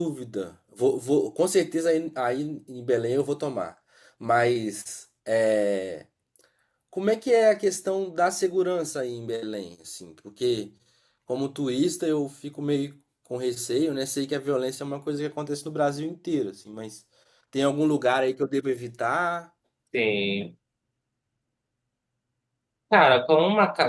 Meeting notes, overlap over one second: none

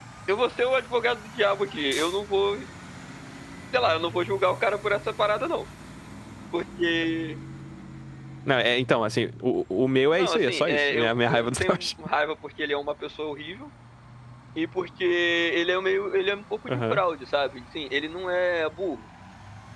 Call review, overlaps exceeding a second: present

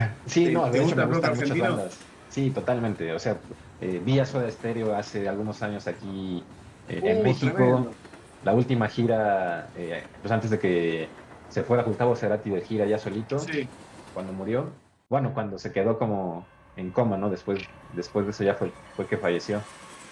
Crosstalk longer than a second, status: present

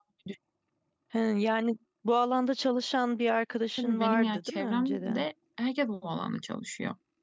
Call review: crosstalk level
present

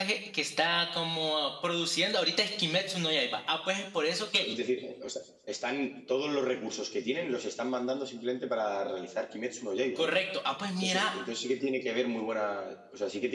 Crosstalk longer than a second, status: none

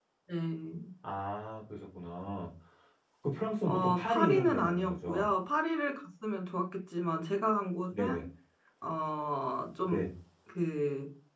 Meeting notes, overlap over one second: present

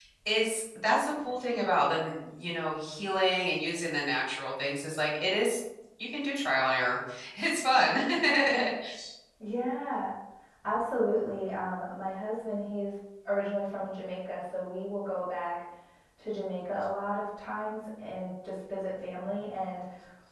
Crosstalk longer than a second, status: none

